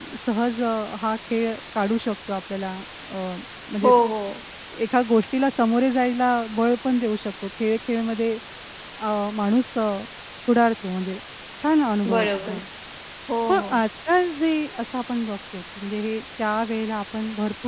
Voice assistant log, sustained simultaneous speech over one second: none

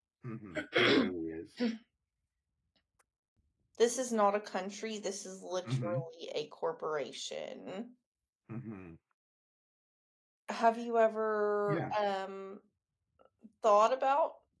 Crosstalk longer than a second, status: none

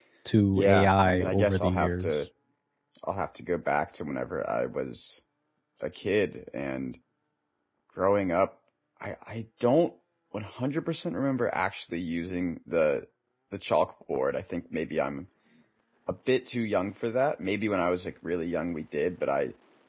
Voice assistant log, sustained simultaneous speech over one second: present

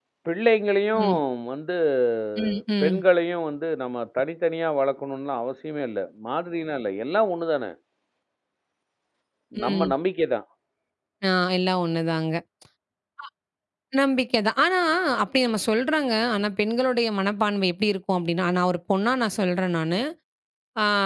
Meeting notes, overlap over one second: none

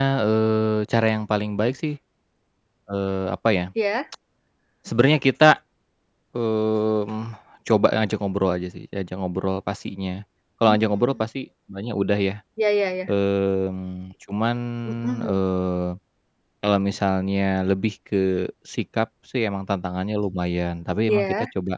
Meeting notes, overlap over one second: none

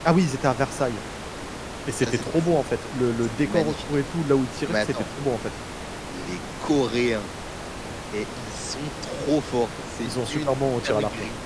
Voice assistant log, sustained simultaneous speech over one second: present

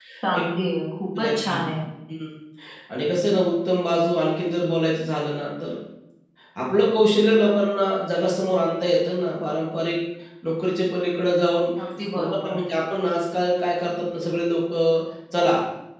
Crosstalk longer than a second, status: none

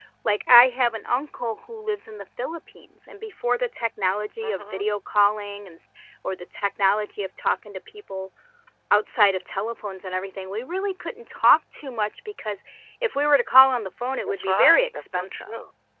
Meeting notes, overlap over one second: present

